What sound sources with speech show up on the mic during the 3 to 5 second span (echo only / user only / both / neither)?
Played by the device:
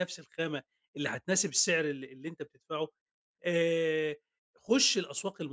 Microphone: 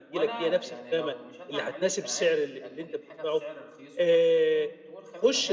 both